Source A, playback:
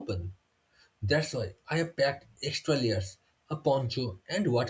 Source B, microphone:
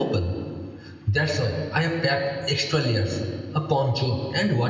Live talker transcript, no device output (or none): none